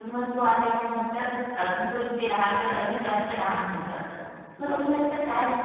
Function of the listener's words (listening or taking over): listening